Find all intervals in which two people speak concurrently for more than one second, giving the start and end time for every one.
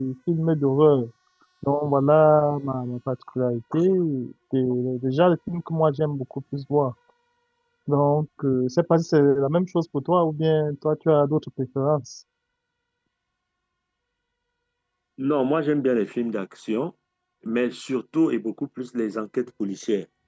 none

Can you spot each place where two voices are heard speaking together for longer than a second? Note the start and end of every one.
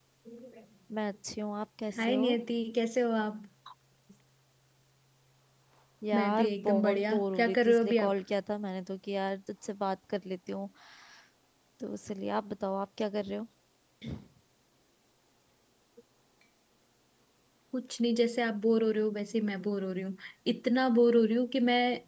6.1-8.2

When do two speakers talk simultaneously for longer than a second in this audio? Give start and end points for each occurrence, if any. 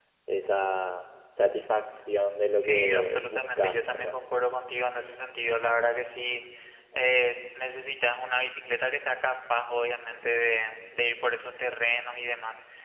2.6-4.2

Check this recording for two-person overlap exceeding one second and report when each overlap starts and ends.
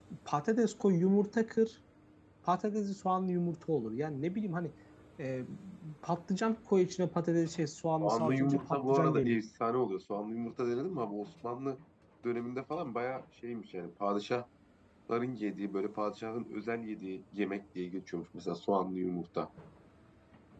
8.0-9.4

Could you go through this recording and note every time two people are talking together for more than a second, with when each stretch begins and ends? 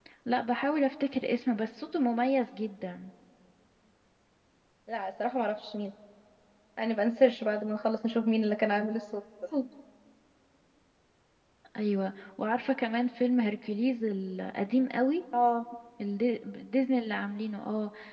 none

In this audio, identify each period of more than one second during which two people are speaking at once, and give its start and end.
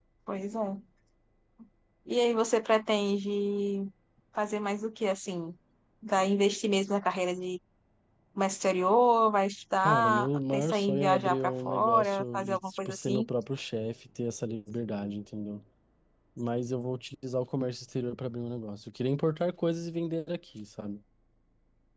9.8-13.3

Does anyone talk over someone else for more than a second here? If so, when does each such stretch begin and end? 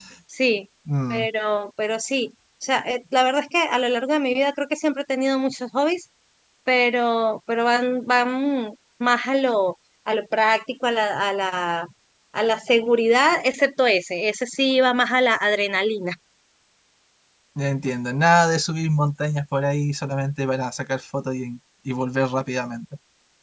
none

